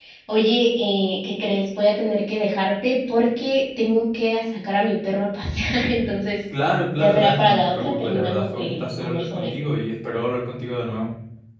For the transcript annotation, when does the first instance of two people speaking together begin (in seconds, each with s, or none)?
7.0 s